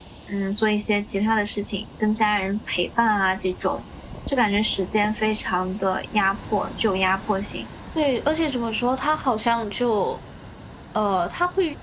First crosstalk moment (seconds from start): none

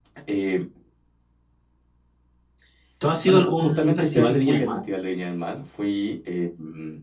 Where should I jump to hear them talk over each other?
3 s

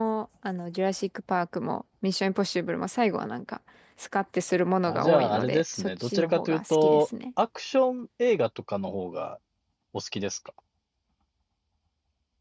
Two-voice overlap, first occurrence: 5 s

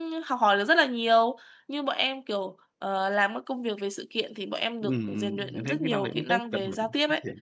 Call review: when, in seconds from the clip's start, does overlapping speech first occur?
5 s

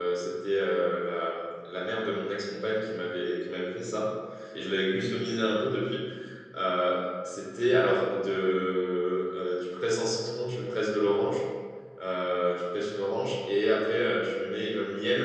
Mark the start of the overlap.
none

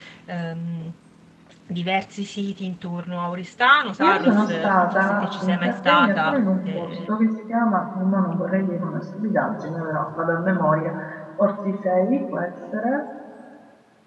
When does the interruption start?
4 s

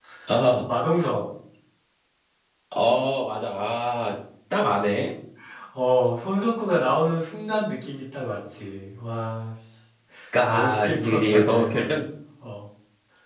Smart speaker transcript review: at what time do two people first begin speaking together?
10 s

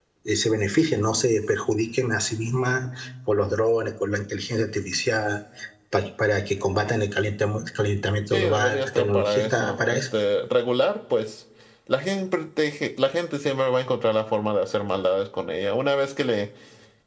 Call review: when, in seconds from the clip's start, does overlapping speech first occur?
8 s

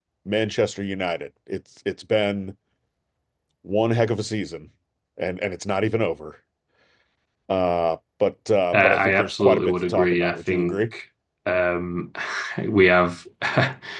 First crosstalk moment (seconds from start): 9 s

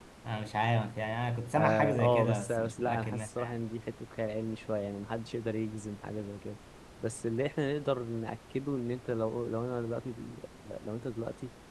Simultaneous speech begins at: 2 s

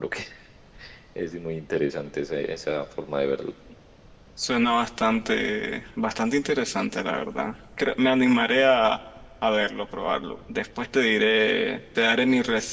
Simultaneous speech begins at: none

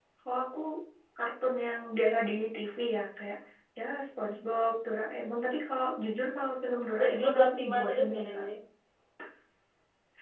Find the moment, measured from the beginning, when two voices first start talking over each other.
7 s

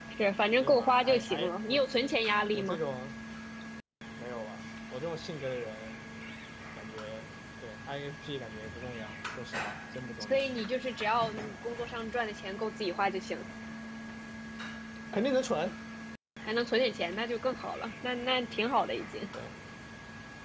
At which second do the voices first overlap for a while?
1 s

